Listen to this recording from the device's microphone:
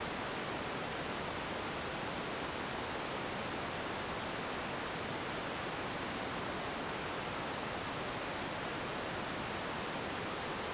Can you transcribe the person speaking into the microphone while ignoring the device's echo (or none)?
none